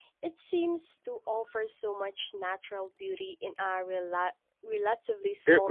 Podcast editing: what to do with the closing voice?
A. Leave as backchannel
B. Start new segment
B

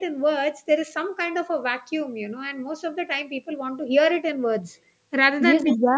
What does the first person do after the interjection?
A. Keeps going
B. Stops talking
B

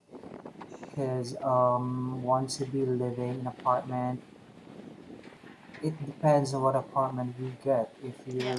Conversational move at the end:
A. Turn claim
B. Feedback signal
B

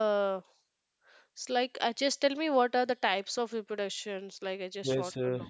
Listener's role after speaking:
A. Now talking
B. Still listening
A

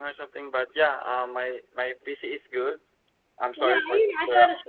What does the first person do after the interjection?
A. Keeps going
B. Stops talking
B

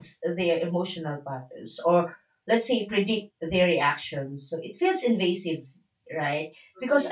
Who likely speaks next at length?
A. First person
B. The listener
A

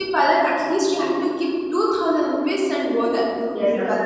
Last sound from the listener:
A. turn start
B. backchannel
A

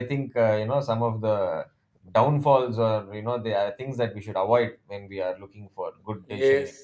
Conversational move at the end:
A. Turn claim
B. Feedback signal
A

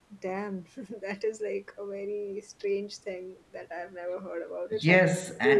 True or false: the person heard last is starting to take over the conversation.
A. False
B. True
B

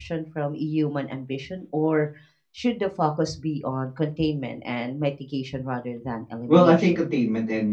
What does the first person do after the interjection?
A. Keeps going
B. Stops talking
B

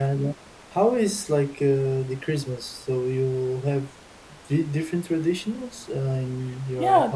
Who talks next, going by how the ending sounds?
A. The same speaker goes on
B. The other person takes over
B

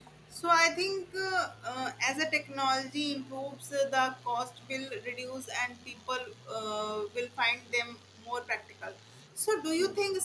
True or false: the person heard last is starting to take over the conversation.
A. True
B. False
B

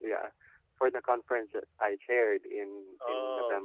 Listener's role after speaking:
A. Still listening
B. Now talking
A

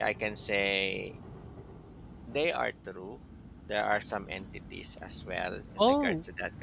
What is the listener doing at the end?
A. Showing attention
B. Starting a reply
B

